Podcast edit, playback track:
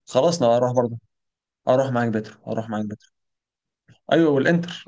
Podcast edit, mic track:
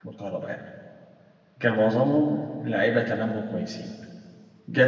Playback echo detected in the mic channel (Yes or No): No